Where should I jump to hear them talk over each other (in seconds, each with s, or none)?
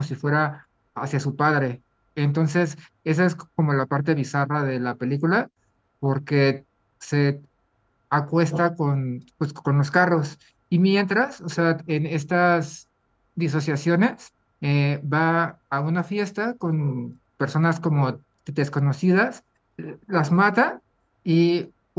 none